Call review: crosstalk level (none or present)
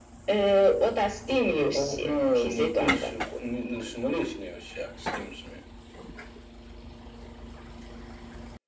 present